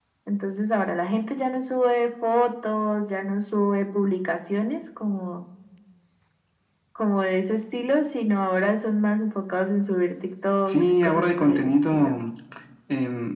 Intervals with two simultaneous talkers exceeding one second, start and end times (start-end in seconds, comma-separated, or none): 10.7-12.1